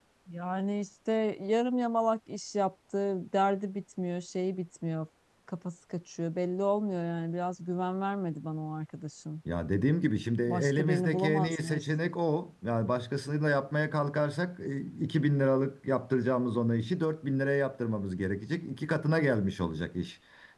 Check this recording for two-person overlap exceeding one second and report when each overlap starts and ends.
10.5-11.8

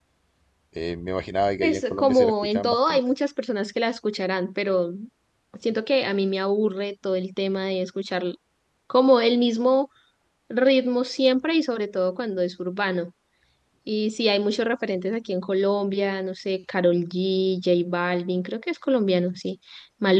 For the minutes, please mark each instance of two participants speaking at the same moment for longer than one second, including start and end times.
1.6-3.0

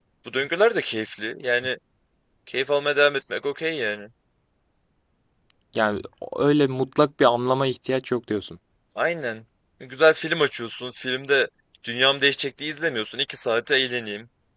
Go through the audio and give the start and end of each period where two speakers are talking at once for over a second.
none

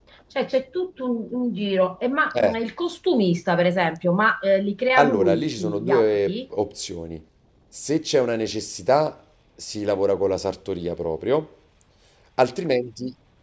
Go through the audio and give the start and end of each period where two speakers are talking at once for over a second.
5.0-6.4

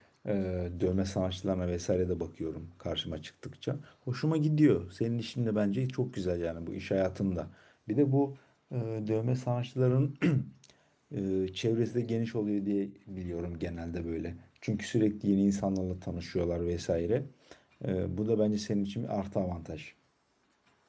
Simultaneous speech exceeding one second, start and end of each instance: none

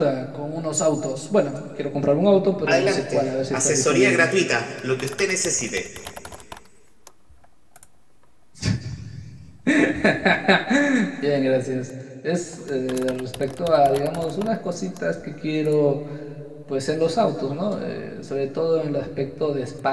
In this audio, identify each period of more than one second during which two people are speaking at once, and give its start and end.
2.7-4.3

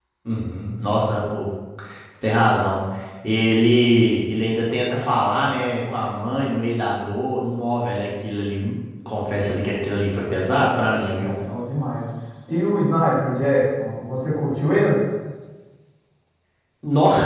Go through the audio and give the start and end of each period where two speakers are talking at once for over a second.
none

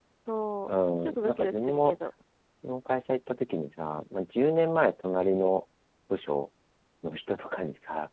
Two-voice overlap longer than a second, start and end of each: 0.7-2.0

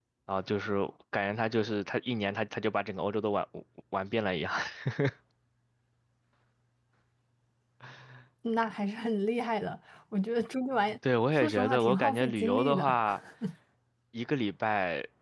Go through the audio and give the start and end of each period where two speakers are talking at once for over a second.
11.3-13.0

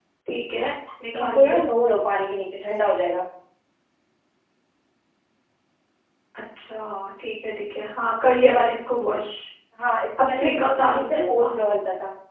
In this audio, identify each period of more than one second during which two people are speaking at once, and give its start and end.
10.2-11.6

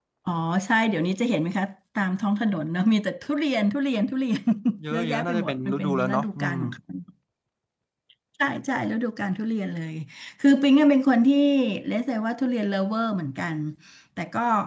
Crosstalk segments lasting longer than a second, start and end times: 4.9-6.6

